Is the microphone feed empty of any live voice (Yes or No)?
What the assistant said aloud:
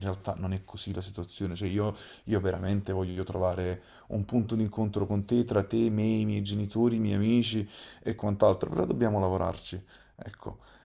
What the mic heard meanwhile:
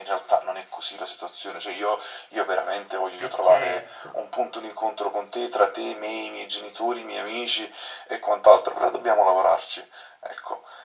No